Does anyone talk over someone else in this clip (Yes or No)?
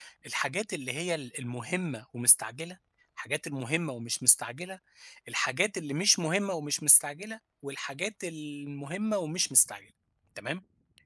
No